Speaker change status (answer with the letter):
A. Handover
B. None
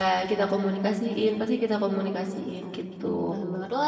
A